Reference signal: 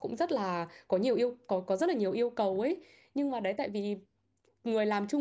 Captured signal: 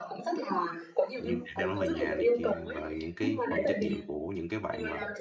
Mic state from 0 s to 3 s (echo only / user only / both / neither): both